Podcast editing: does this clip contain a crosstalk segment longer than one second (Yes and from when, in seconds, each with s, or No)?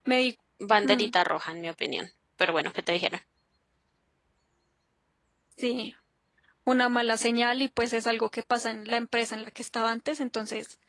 No